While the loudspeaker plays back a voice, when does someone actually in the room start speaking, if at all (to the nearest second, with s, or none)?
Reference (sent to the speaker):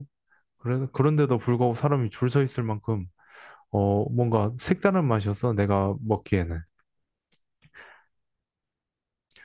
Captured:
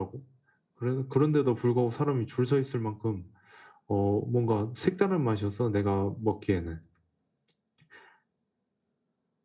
none